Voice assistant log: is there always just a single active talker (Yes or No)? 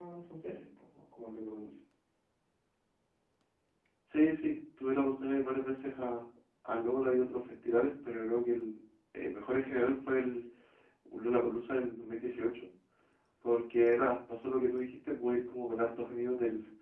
Yes